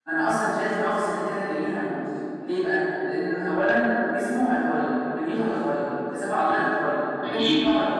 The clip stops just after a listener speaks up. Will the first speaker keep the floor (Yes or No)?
Yes